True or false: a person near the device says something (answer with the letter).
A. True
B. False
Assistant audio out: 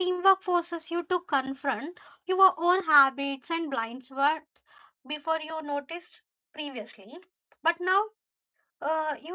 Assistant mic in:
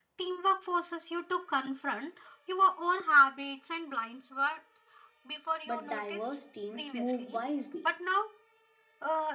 A